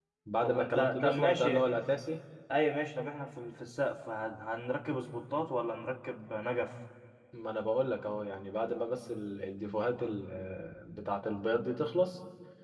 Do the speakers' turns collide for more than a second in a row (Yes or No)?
Yes